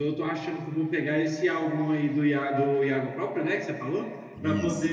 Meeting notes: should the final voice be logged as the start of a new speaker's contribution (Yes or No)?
No